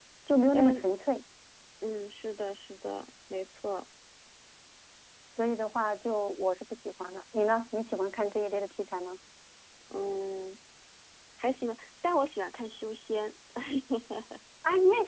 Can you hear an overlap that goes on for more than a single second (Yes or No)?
No